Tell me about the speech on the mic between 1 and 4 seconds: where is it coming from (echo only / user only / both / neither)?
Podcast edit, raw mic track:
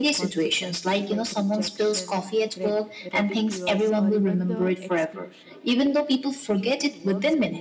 both